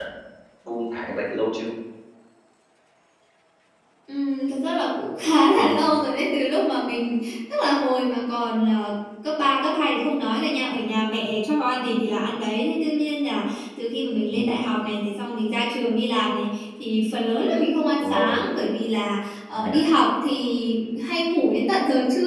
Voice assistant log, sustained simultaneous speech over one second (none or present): none